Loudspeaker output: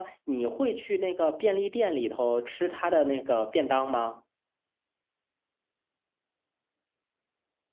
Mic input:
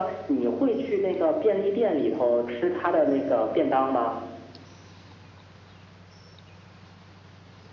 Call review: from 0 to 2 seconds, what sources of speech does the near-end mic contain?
echo only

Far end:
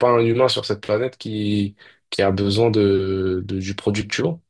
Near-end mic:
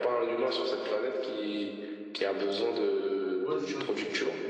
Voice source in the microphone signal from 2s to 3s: echo only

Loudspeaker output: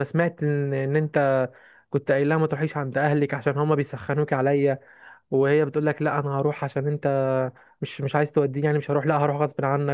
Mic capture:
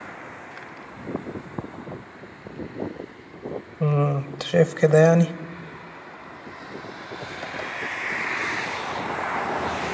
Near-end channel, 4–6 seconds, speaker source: user only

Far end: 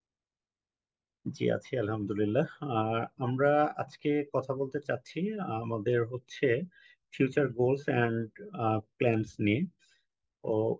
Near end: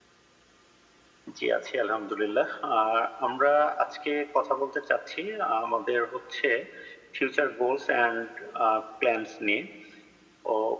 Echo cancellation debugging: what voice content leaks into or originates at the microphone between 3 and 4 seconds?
echo only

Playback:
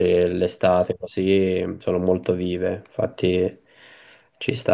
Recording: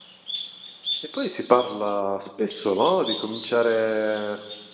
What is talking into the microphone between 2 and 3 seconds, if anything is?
user only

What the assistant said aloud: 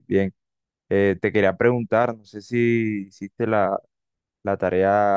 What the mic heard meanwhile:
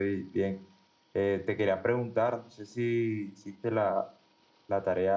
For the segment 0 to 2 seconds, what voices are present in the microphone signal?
echo only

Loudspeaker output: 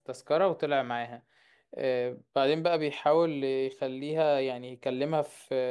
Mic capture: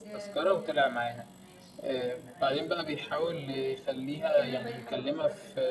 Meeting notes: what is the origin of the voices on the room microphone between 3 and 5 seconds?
both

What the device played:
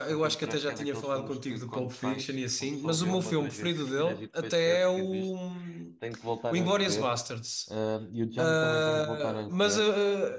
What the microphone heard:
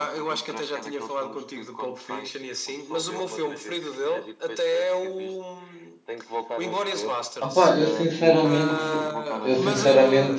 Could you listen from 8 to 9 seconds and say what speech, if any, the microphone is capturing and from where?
both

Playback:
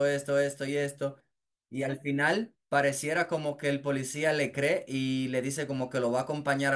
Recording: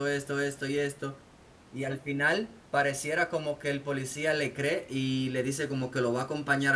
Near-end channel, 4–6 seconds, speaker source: echo only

